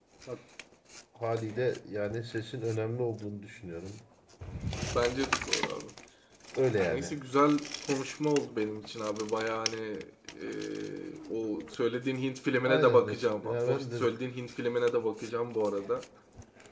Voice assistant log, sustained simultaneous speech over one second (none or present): present